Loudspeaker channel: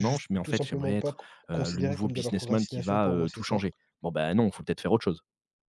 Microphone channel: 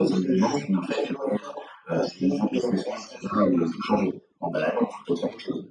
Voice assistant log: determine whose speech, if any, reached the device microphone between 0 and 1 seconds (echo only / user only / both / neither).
echo only